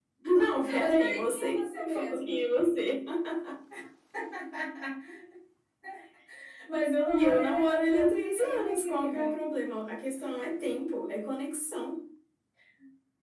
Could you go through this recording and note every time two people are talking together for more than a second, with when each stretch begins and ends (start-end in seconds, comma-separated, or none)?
0.6-2.4, 7.1-9.4